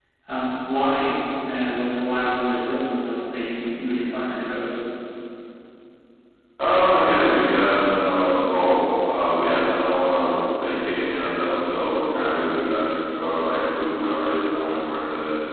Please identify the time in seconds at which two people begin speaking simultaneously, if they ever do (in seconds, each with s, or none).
none